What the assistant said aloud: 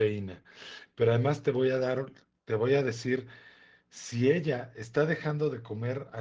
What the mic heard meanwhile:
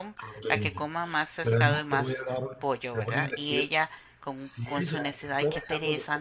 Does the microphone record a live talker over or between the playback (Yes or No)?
Yes